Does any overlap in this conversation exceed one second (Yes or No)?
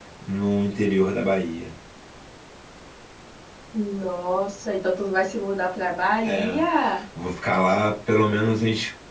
No